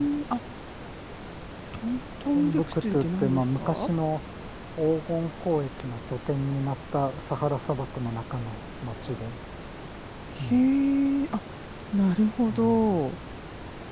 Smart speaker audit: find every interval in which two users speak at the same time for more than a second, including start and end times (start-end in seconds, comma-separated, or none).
2.3-3.9